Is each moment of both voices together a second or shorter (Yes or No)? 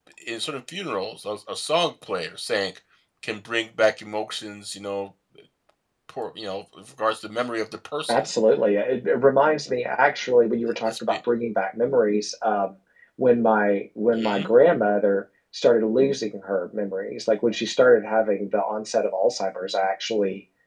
Yes